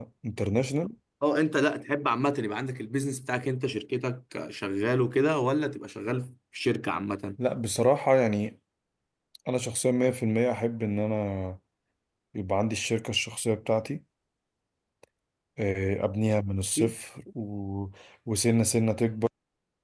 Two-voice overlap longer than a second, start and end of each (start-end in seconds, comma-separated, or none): none